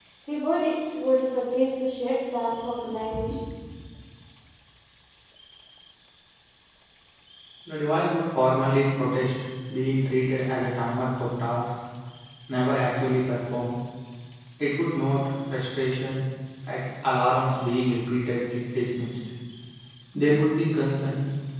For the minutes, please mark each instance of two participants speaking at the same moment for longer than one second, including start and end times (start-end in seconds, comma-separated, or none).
none